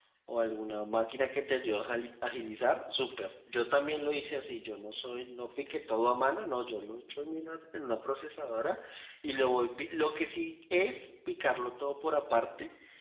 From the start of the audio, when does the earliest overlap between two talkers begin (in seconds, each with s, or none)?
none